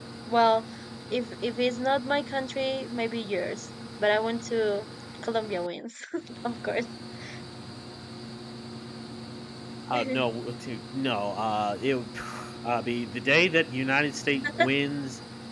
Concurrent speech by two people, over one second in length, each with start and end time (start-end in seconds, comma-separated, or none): none